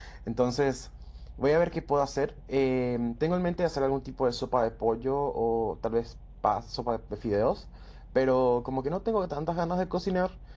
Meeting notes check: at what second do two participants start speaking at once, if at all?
none

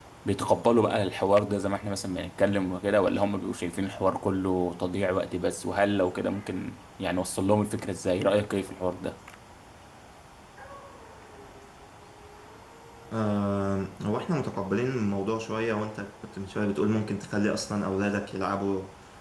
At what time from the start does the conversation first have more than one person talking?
none

